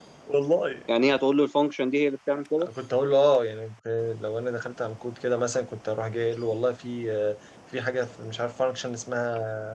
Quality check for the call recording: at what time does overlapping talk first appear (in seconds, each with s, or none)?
none